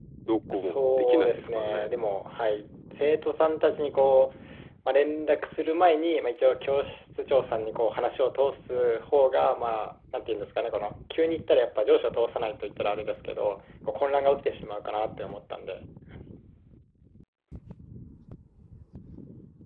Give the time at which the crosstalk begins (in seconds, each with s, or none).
0.5 s